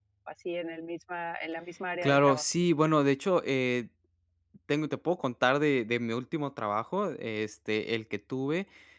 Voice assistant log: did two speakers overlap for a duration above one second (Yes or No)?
No